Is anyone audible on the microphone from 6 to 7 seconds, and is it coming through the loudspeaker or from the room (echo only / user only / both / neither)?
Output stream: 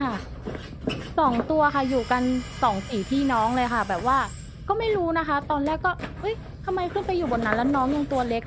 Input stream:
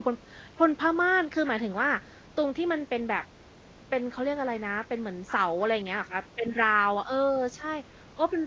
user only